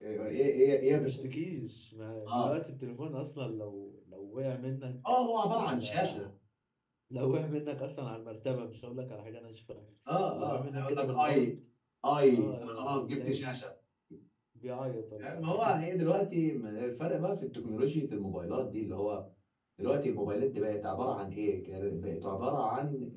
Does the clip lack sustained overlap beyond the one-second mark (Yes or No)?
No